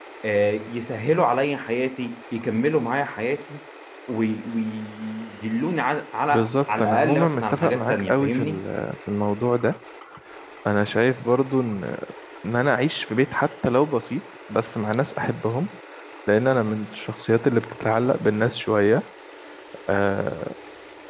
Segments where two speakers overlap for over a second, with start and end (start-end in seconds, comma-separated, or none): 6.3-8.6